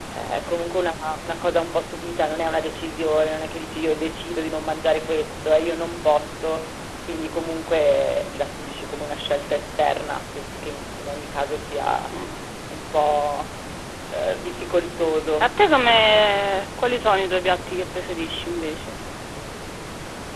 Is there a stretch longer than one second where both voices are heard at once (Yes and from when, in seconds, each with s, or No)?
No